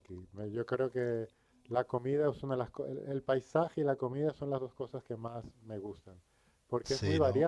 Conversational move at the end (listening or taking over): listening